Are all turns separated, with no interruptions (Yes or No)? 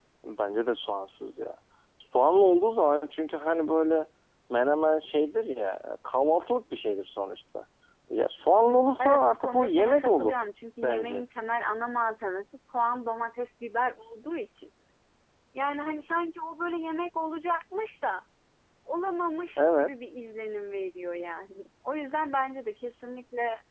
No